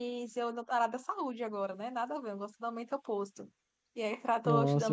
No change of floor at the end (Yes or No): No